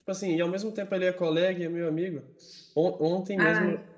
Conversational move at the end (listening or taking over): listening